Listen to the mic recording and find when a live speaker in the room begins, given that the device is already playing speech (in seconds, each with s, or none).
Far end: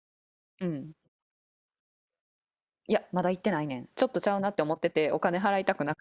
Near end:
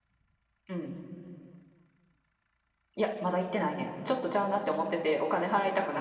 none